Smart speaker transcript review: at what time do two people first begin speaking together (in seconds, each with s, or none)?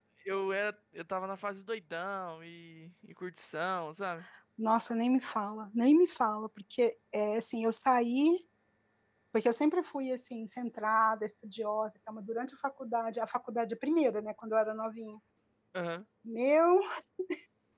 none